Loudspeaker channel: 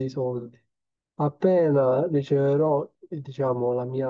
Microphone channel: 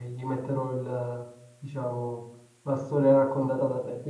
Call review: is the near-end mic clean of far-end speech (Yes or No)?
Yes